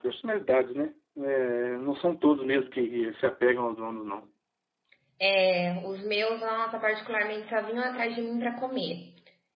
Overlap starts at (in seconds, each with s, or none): none